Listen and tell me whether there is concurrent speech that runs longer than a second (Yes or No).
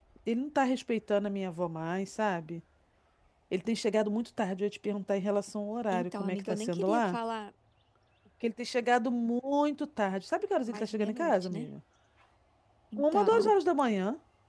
Yes